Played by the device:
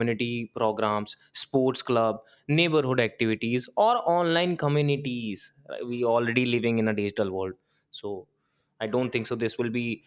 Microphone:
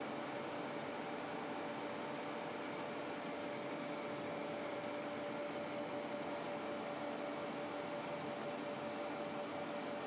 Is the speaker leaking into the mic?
No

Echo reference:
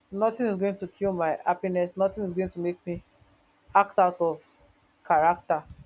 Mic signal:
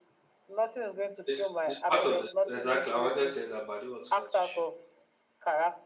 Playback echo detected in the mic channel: Yes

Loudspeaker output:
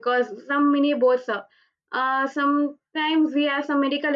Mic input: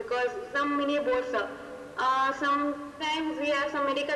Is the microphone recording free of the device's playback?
No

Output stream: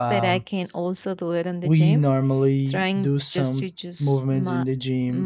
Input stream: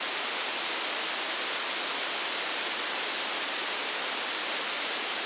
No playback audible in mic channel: Yes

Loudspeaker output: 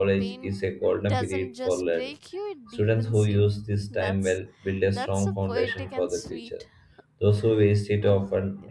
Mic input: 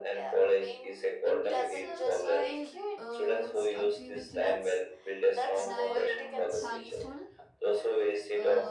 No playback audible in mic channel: No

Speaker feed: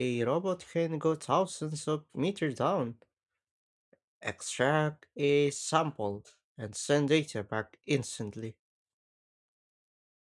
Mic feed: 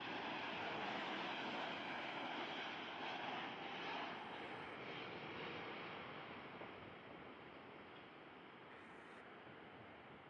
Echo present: No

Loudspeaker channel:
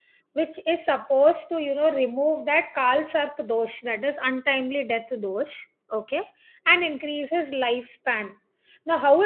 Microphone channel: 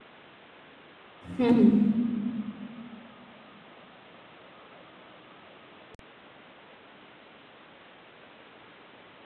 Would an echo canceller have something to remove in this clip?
No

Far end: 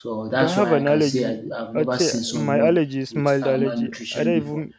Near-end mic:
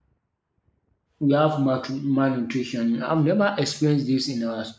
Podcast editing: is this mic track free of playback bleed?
Yes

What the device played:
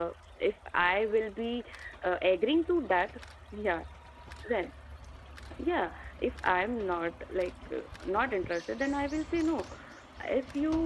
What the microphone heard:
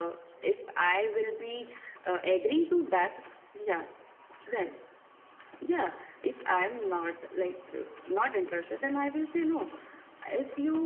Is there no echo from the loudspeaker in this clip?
No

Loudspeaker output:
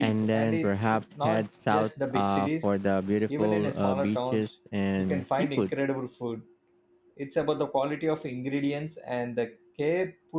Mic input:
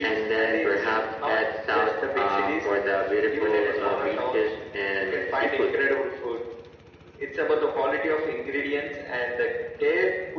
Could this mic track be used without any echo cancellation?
No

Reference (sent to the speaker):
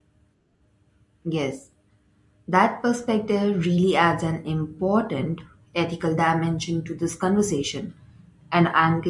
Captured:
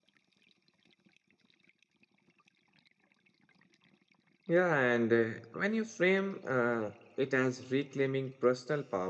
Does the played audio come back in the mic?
No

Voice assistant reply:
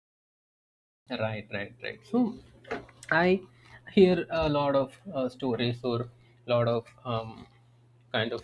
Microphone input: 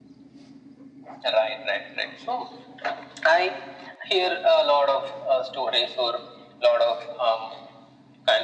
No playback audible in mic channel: No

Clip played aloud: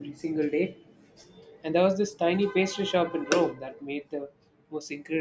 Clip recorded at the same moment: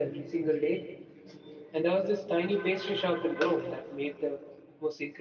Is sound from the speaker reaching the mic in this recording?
Yes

